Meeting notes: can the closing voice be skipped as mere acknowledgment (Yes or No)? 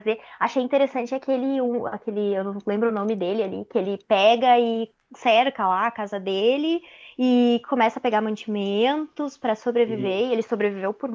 Yes